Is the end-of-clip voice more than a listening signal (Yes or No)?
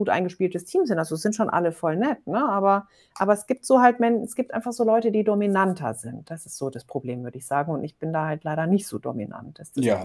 Yes